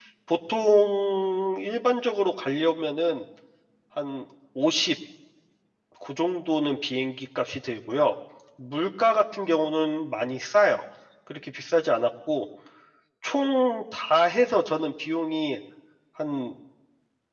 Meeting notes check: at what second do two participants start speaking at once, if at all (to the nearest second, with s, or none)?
none